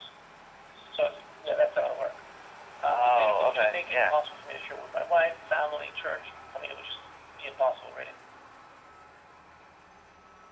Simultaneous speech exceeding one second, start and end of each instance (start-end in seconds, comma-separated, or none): 2.8-4.1